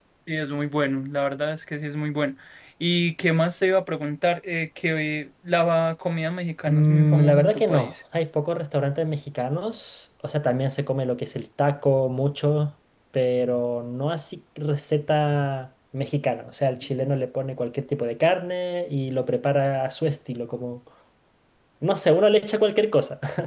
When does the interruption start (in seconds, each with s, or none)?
6.7 s